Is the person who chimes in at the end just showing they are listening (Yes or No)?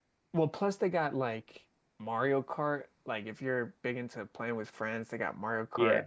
No